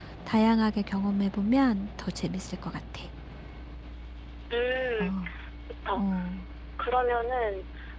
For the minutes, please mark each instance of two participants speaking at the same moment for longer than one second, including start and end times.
none

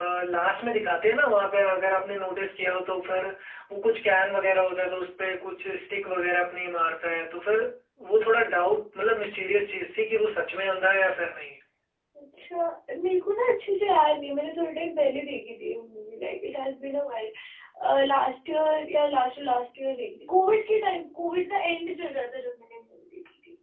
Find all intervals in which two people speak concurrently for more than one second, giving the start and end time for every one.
none

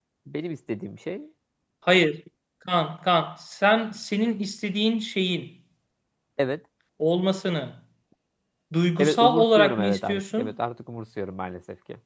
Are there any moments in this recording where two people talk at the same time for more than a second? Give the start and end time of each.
9.0-10.5

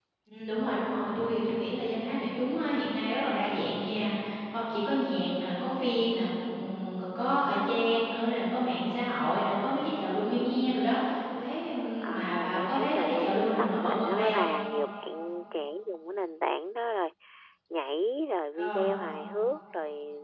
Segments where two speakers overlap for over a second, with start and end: 12.0-14.4

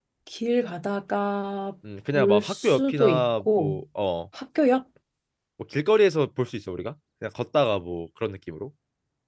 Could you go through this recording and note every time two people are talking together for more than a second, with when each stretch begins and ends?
2.1-3.8

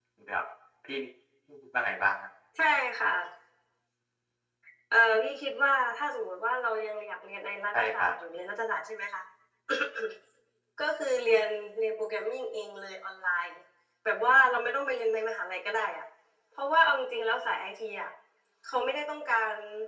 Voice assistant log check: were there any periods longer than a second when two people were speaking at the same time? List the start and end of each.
none

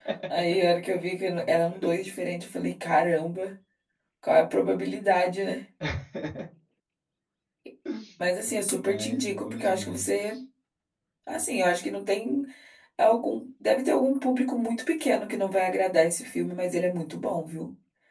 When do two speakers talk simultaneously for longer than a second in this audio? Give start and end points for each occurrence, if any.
8.5-10.1

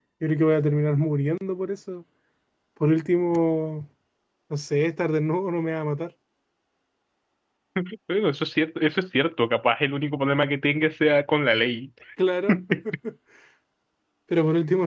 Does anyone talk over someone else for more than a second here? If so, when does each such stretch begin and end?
none

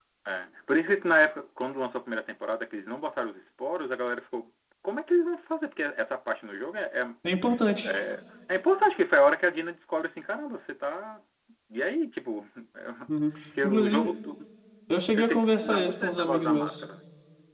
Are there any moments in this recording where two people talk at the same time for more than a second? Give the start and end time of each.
15.2-16.8

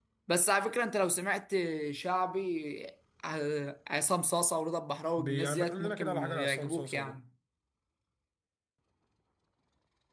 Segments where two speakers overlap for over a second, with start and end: 5.2-7.1

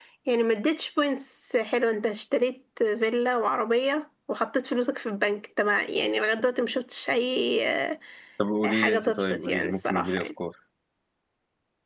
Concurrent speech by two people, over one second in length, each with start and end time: 8.7-10.2

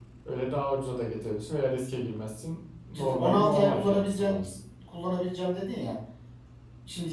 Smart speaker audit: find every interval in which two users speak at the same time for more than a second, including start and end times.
3.0-4.4

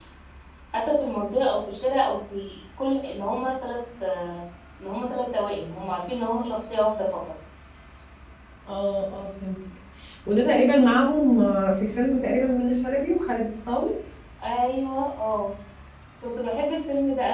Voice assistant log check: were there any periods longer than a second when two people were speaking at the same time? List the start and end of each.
none

